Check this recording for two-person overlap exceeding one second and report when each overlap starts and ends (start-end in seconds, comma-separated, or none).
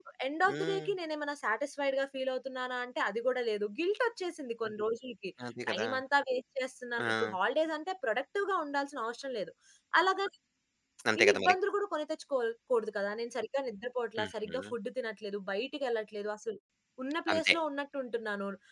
none